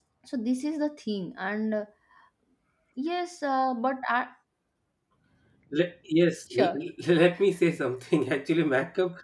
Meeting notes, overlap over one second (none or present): none